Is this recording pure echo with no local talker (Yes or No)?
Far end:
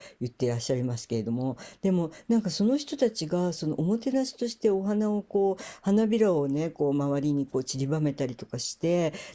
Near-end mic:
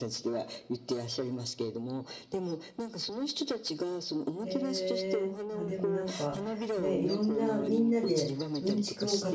No